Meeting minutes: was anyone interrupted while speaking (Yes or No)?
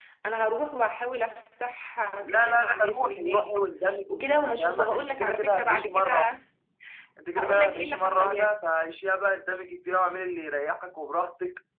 Yes